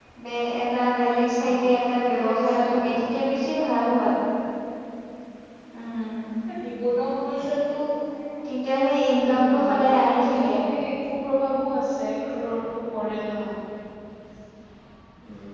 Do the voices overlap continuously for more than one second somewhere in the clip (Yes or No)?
Yes